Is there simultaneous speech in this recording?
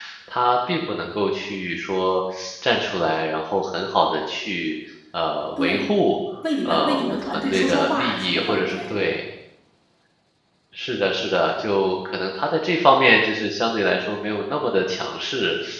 Yes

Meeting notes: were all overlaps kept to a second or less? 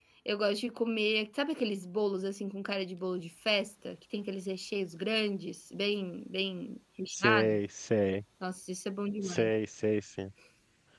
Yes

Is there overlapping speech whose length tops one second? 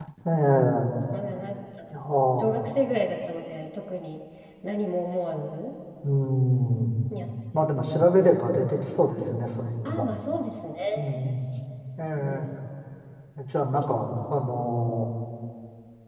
No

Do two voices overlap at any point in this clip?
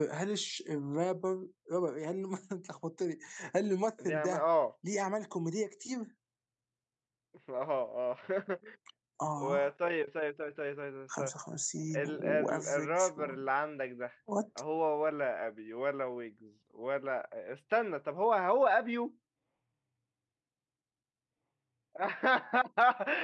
Yes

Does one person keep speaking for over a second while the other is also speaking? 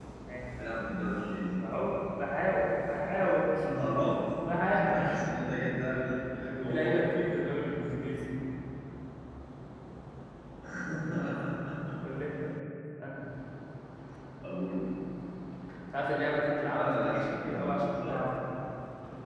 Yes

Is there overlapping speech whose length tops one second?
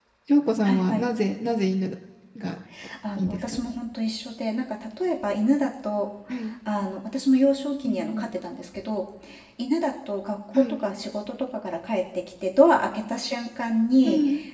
No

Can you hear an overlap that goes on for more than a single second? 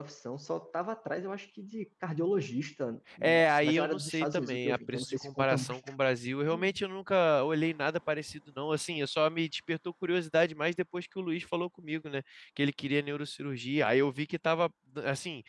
Yes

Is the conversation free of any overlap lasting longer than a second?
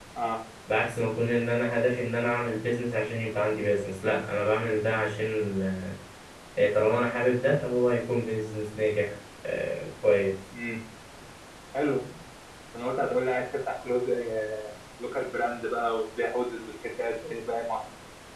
Yes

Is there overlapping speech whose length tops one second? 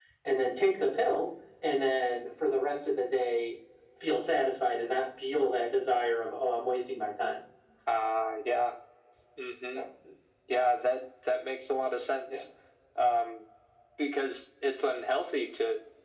No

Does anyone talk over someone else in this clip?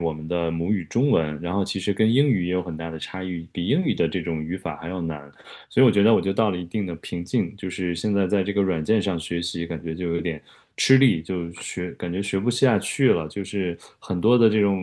No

